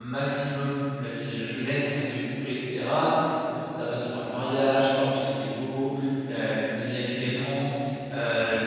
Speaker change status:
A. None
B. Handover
A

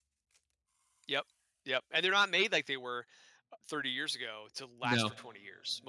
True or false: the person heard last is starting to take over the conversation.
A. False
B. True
A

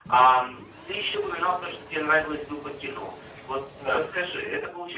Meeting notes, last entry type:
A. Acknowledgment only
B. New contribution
A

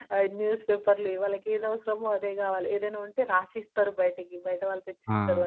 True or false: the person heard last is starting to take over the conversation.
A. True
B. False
B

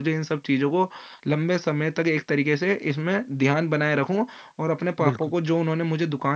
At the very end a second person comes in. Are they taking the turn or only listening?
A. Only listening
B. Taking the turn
A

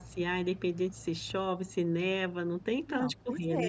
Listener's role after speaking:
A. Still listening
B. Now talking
B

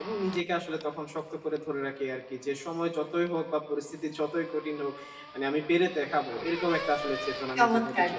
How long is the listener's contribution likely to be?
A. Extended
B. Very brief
A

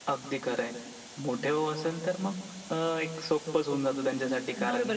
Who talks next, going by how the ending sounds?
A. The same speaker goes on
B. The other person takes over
B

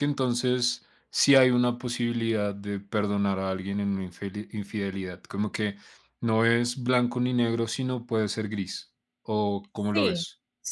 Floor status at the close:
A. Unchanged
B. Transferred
B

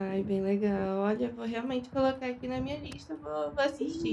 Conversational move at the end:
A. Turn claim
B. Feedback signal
A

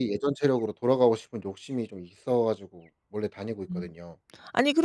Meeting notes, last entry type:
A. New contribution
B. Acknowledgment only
A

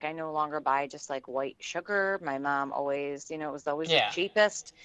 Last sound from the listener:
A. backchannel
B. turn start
A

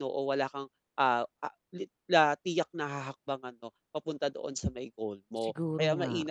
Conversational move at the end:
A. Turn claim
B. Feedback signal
B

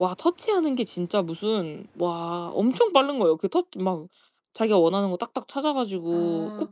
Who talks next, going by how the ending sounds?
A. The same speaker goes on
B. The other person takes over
B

